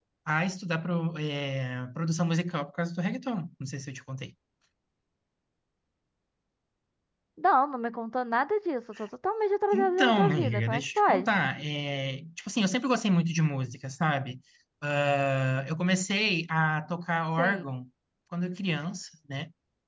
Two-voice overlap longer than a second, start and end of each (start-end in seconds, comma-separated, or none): 9.7-11.3